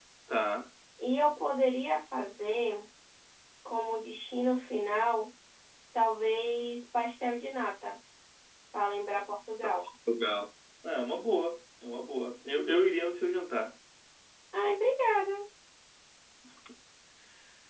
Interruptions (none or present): none